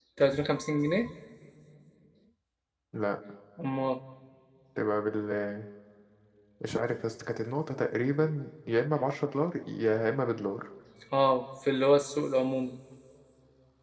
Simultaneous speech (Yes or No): No